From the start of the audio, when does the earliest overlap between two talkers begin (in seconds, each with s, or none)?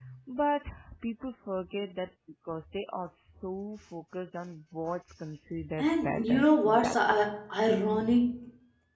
5.8 s